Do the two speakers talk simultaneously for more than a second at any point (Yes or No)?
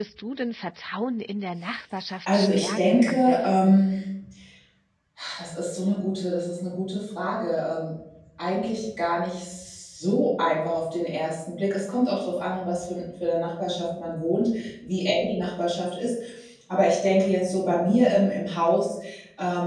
Yes